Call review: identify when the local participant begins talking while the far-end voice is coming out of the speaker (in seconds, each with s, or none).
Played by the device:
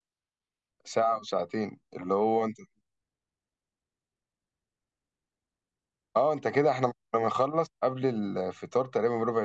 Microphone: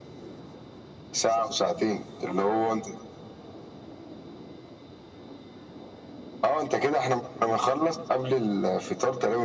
none